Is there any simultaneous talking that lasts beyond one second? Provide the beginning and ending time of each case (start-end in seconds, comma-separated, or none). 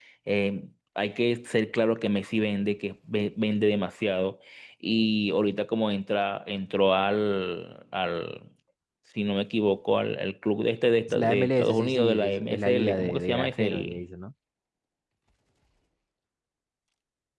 11.2-14.0